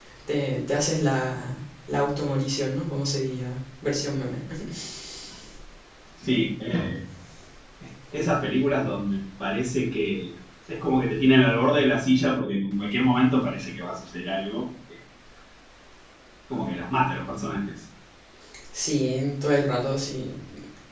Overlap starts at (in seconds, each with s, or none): none